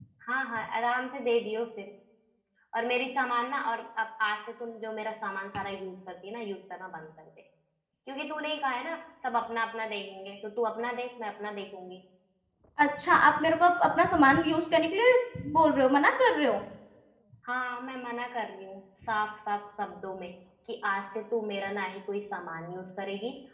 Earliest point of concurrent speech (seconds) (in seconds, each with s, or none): none